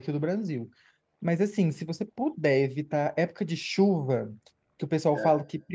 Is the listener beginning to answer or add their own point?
No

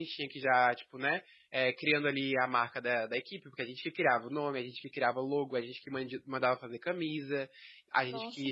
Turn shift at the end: No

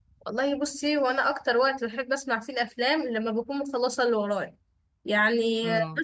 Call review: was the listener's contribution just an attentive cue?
Yes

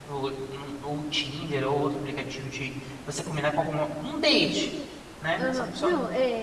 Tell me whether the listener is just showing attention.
No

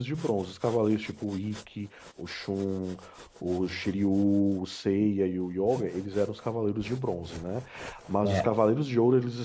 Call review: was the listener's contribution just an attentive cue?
Yes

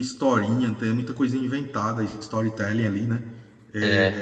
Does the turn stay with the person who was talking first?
Yes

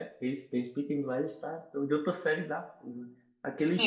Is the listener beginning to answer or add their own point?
Yes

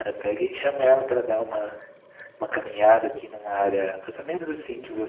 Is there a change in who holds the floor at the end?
No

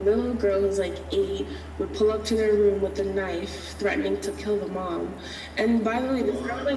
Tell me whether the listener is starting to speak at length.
No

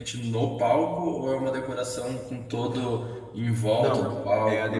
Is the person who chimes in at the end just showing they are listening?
No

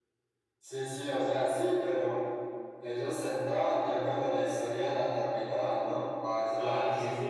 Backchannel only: No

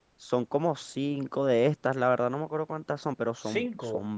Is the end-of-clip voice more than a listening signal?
No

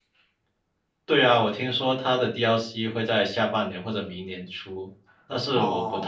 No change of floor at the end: Yes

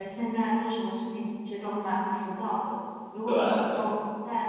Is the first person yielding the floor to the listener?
No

